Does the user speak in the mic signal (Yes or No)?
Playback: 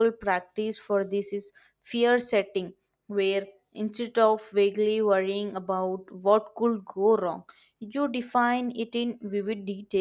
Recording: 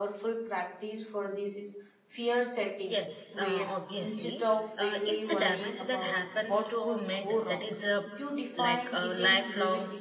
Yes